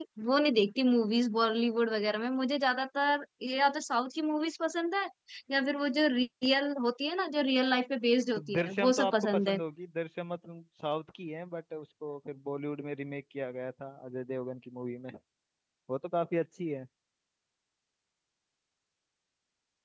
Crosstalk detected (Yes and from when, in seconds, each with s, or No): Yes, from 8.4 s